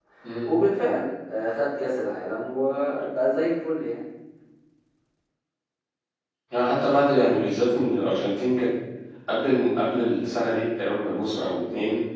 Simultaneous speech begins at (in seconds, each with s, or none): none